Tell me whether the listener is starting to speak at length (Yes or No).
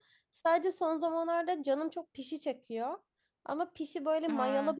No